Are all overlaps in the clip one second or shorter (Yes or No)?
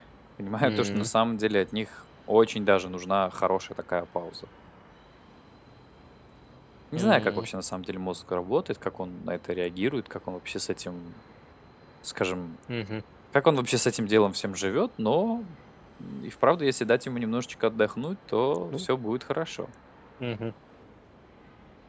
Yes